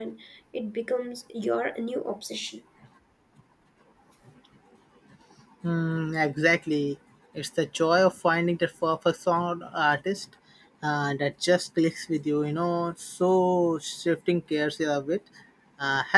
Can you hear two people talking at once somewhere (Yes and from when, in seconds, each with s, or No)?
No